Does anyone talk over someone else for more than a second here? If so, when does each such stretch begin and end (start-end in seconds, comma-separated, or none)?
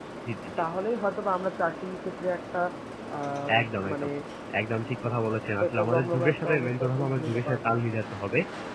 5.7-7.7